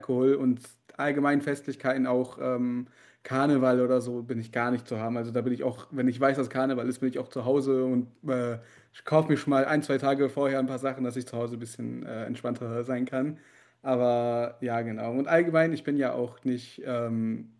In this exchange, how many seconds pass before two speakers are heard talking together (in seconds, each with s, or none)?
none